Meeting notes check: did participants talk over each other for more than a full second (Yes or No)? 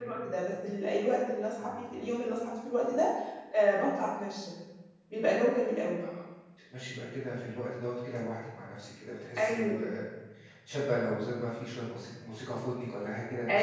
No